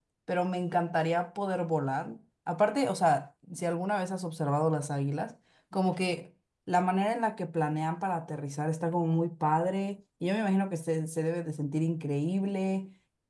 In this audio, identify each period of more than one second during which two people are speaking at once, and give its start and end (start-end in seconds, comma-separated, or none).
none